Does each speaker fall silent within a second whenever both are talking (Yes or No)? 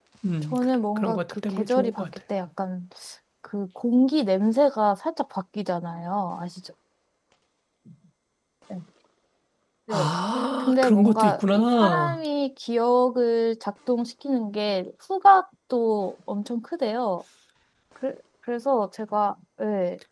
No